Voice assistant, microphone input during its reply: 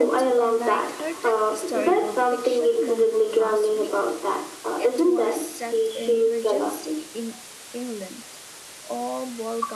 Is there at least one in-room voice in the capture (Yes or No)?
Yes